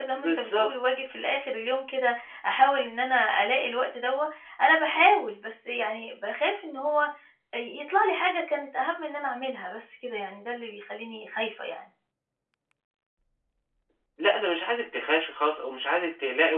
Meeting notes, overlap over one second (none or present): none